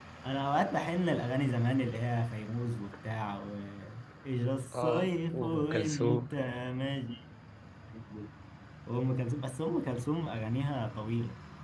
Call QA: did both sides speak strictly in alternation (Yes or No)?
No